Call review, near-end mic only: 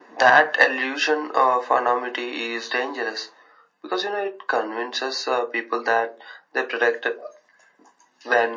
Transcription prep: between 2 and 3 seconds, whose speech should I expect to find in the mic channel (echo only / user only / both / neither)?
echo only